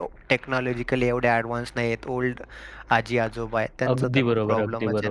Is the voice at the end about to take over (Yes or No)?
Yes